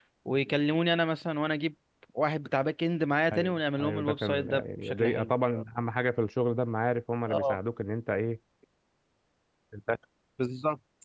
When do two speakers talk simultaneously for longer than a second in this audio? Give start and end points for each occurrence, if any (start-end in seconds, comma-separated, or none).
3.3-5.3